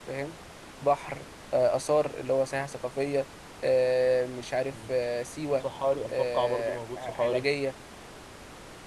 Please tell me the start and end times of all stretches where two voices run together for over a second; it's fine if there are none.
6.1-7.5

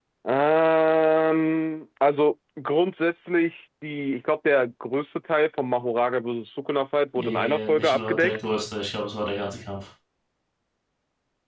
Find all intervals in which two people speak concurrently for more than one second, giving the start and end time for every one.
7.2-8.4

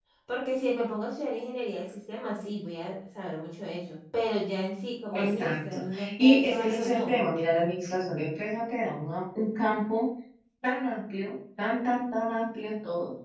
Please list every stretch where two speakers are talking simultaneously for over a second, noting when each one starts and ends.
5.1-7.2

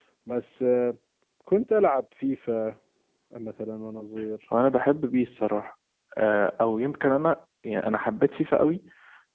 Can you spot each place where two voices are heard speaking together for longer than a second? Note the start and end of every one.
none

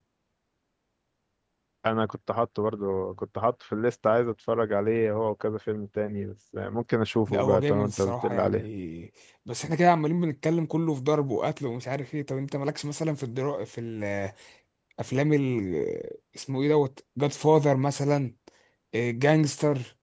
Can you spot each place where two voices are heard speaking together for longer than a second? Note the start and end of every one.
7.3-8.6

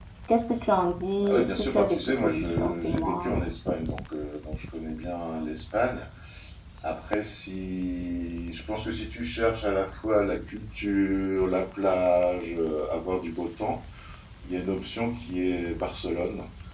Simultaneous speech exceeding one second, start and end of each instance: 1.2-3.4

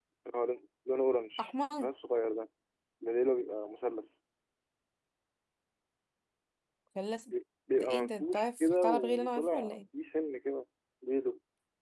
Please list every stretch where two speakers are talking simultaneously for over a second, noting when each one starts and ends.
7.8-9.8

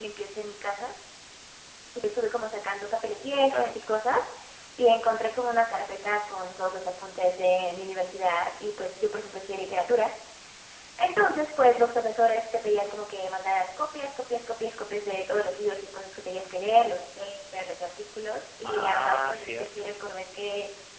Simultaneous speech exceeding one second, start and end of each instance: 18.6-19.9

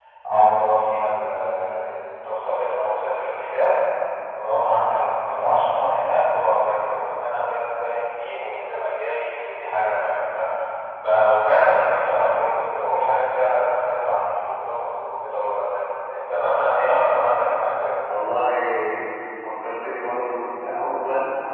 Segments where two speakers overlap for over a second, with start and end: none

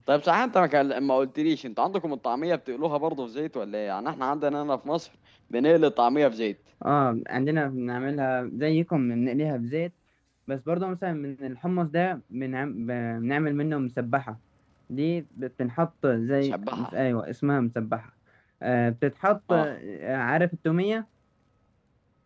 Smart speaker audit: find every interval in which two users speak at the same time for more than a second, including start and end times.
none

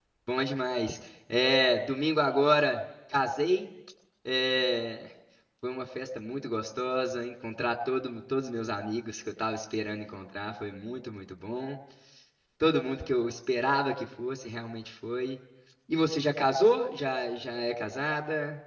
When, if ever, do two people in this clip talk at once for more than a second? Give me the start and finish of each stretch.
none

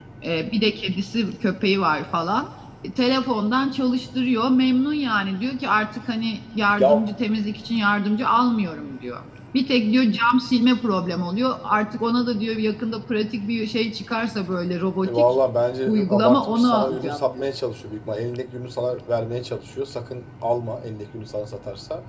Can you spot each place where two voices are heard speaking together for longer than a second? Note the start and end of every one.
15.9-17.4

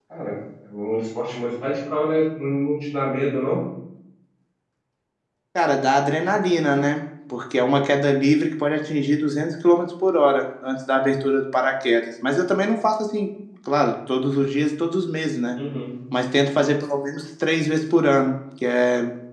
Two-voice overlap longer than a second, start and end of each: none

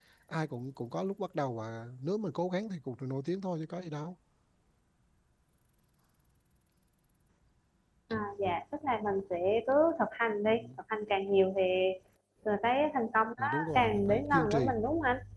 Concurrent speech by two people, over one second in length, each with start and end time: 13.4-14.7

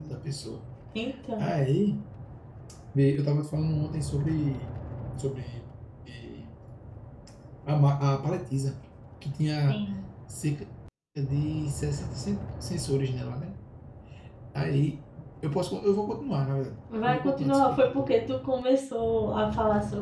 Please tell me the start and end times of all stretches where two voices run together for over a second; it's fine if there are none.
17.0-18.4

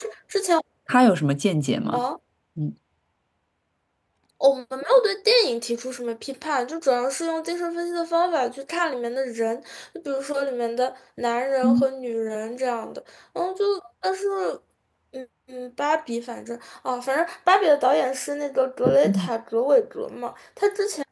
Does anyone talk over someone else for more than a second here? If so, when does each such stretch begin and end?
none

